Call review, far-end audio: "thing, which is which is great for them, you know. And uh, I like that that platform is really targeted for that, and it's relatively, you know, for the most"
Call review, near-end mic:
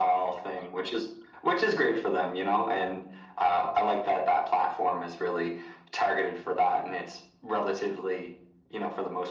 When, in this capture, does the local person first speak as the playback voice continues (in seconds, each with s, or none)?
none